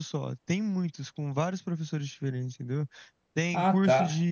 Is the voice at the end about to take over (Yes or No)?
No